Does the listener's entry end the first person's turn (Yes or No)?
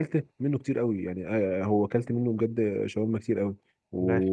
No